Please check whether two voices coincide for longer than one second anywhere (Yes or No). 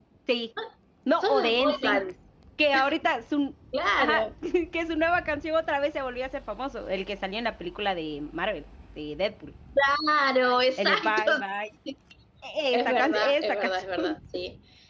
Yes